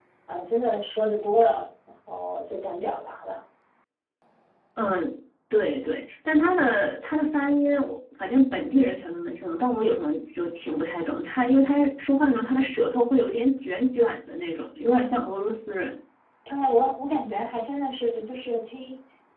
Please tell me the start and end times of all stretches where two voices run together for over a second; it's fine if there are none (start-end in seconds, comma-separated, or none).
none